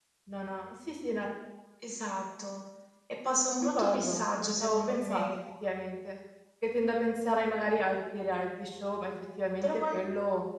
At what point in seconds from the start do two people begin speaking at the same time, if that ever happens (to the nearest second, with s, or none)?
4 s